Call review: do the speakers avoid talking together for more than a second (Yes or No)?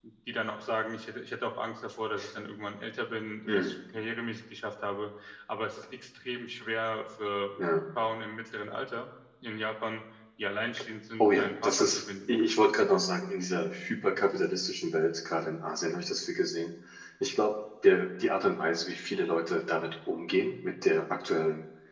No